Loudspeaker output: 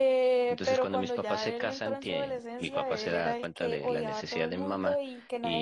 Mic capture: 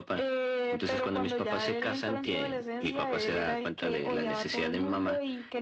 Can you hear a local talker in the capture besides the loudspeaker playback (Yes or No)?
No